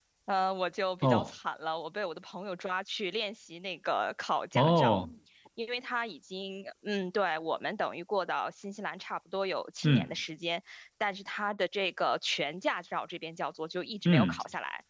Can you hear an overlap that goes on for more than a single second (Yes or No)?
No